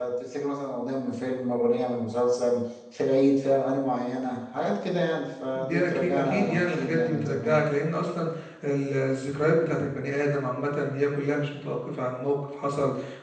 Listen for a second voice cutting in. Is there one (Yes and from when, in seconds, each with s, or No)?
Yes, from 5.5 s